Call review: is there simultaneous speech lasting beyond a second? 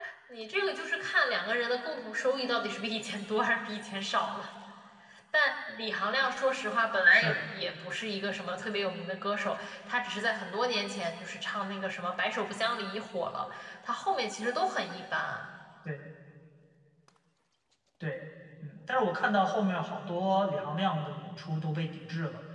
No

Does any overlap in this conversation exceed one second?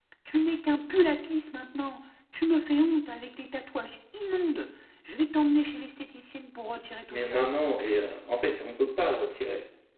No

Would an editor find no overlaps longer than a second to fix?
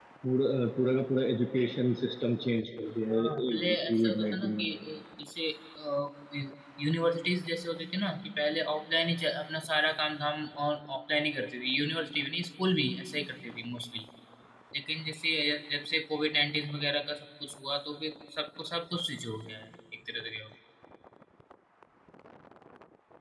No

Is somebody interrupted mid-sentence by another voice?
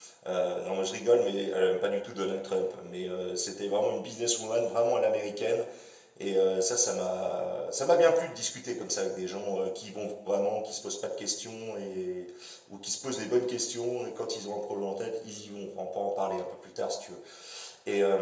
No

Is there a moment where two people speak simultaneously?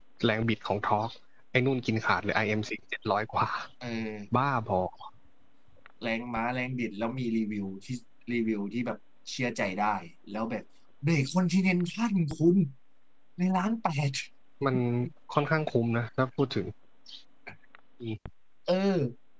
No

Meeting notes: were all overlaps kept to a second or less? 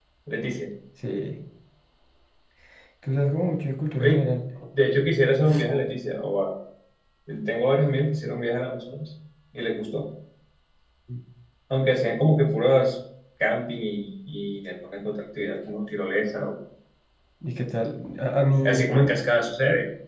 Yes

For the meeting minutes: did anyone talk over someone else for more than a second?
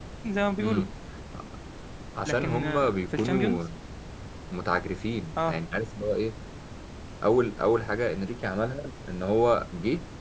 Yes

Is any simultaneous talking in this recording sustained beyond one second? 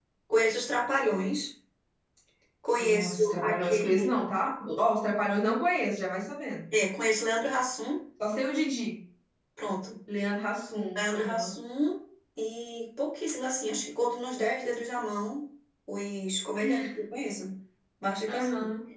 Yes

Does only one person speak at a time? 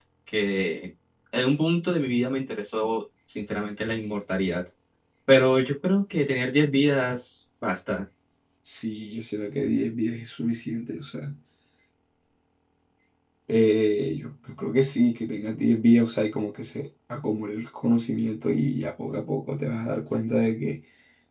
Yes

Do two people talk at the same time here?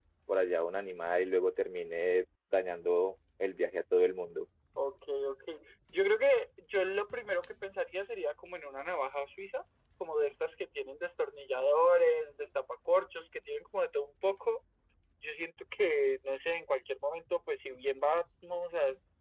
No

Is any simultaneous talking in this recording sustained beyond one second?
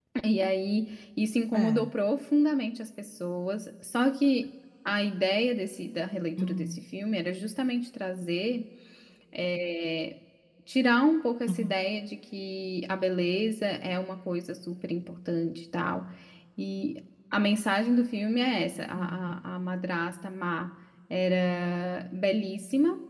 No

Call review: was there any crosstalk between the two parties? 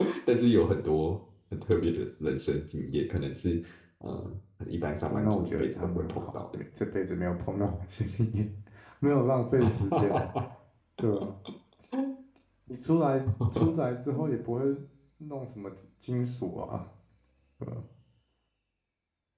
Yes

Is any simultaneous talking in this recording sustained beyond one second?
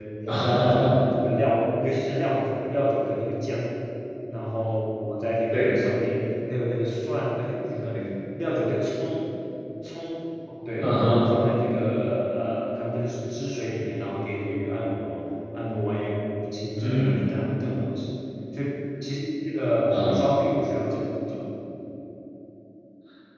No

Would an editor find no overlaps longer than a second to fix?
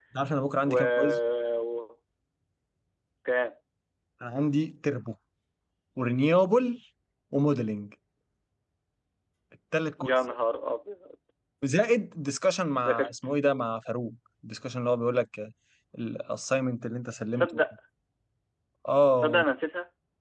Yes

